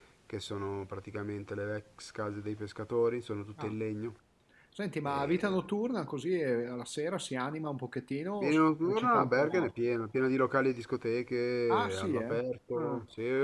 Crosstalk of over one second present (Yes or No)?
Yes